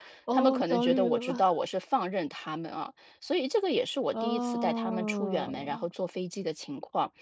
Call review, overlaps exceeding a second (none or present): present